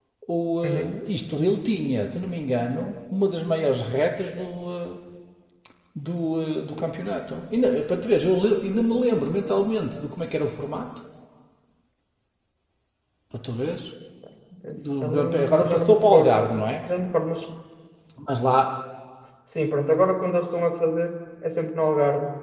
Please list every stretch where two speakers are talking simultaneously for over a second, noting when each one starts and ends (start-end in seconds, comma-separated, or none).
15.0-16.4